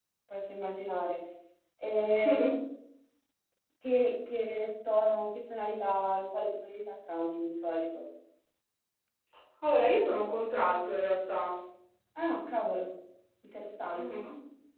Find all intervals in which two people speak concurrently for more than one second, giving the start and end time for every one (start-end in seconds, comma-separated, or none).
none